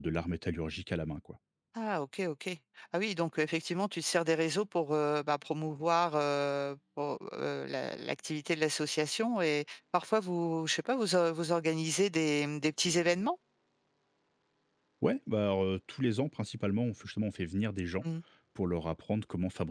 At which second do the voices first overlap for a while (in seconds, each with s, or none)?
none